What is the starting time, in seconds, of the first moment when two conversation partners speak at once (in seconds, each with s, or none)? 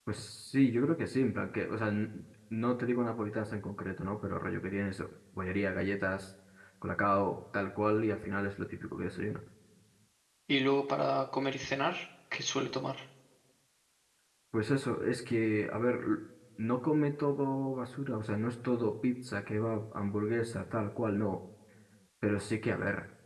none